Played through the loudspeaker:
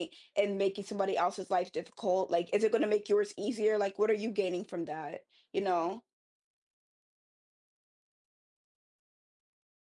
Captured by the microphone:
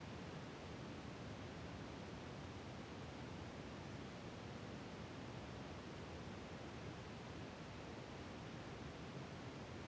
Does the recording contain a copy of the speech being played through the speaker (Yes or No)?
No